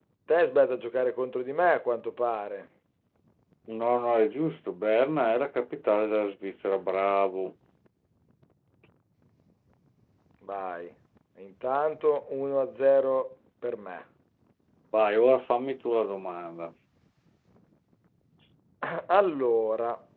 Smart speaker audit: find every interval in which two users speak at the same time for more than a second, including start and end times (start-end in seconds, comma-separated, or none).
none